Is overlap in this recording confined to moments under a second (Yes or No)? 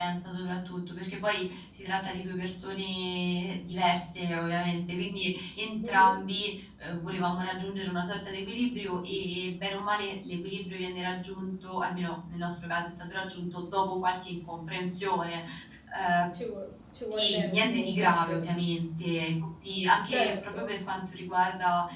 No